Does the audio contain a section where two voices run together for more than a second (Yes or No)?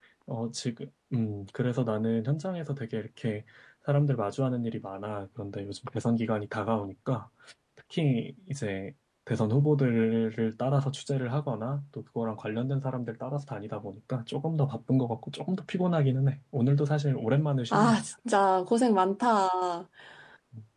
No